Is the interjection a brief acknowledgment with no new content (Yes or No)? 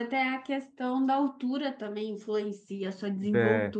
No